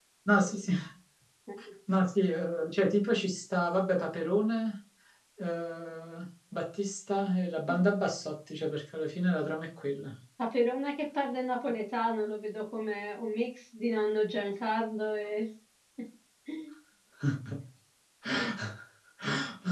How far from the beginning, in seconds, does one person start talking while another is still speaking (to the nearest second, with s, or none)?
none